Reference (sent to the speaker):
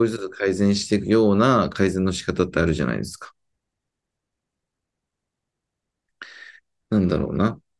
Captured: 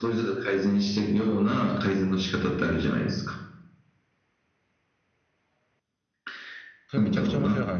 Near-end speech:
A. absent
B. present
B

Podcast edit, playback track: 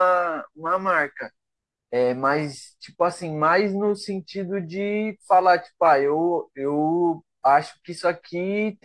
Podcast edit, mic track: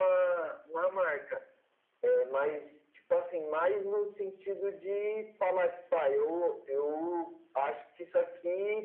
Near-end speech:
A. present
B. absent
B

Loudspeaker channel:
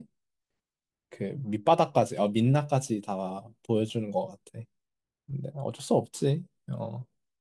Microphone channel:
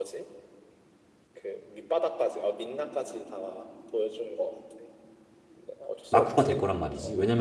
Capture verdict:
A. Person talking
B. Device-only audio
A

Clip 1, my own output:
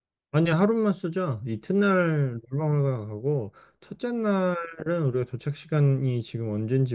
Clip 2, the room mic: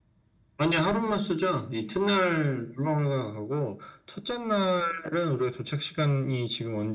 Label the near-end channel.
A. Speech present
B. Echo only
B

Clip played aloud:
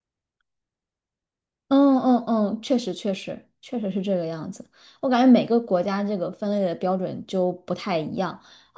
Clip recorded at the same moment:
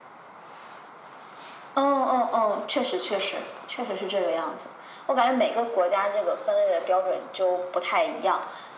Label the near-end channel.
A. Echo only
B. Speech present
A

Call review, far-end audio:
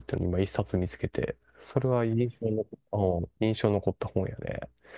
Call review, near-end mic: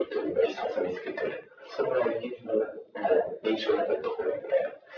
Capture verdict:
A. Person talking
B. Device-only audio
B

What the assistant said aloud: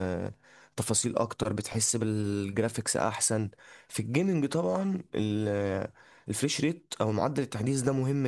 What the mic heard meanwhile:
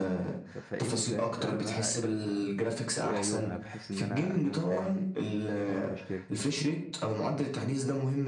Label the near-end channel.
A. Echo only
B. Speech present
B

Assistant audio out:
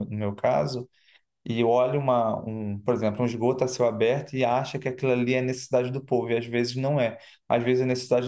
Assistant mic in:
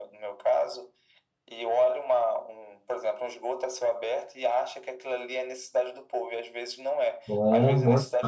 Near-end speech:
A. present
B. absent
A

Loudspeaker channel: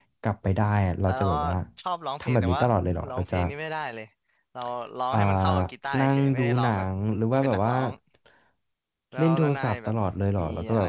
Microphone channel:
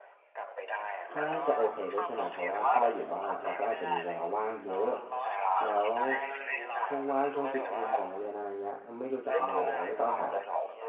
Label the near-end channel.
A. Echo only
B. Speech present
B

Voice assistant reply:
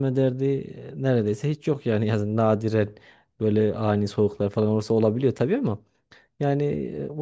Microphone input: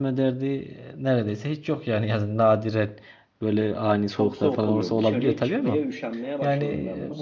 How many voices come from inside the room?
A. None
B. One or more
B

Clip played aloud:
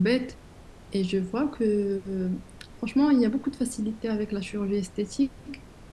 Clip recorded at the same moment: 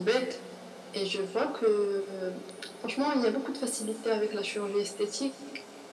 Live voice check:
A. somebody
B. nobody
B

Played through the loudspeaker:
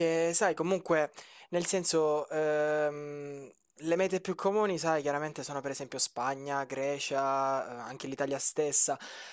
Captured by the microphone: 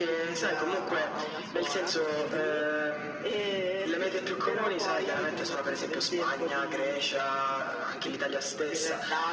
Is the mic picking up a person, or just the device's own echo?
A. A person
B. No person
A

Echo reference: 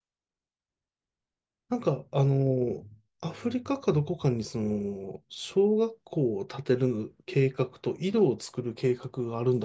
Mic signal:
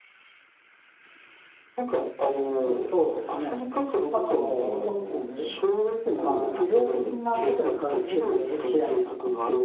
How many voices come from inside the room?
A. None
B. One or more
B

